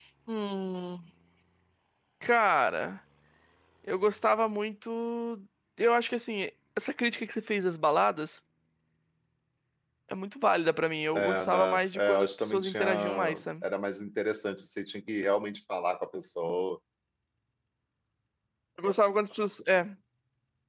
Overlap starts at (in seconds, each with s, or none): 11.1 s